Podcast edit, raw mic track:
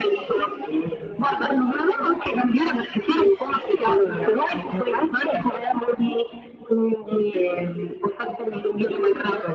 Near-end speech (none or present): none